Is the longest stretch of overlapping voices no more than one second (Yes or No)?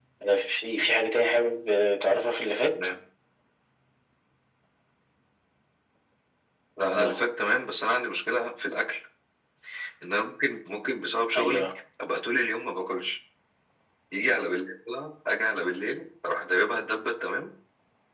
Yes